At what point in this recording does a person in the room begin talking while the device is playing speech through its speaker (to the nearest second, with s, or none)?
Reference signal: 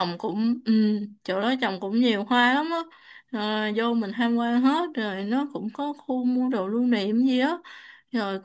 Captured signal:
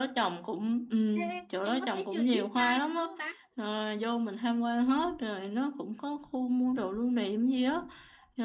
1 s